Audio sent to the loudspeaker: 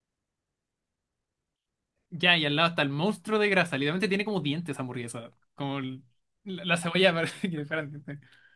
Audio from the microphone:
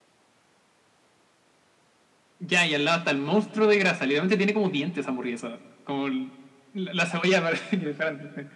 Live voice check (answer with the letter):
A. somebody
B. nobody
B